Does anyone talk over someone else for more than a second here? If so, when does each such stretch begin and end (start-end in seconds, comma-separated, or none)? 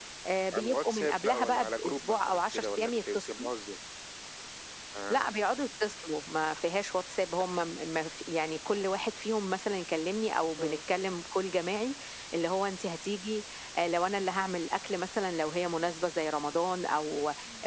0.5-3.5